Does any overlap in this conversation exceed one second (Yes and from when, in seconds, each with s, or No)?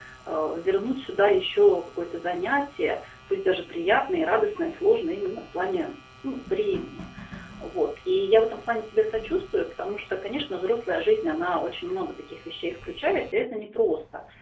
No